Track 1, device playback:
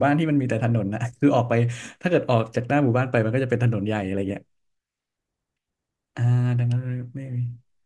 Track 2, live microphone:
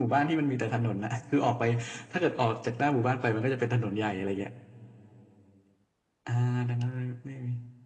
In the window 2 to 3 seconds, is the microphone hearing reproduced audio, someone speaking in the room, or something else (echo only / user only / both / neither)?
echo only